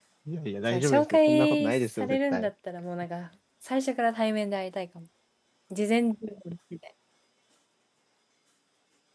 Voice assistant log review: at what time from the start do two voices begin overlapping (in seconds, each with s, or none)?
0.7 s